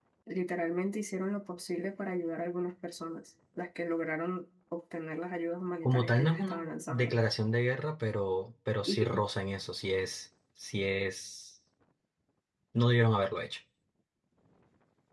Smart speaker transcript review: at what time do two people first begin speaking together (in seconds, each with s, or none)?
5.8 s